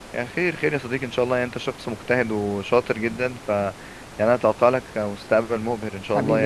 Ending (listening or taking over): taking over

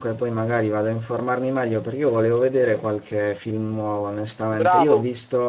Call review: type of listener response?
listening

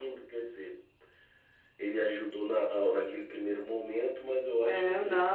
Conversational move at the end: taking over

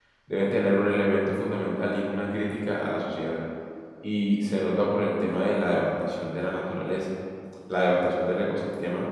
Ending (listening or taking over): listening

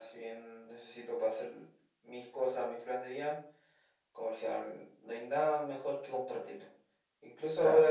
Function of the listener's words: listening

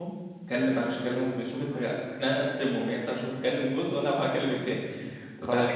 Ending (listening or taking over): listening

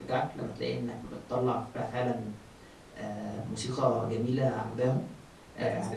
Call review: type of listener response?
listening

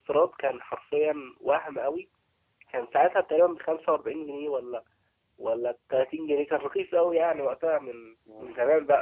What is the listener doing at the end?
taking over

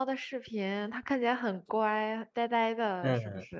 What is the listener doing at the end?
taking over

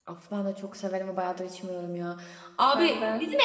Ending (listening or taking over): listening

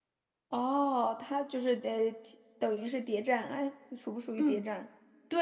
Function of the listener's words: taking over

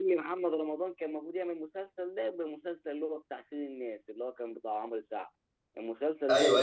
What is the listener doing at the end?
taking over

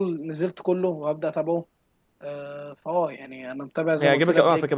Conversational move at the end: taking over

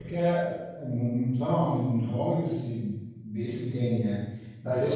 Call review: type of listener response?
listening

